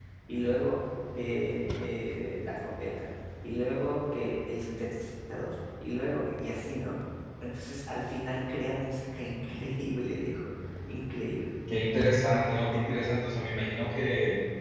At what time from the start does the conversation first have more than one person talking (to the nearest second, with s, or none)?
none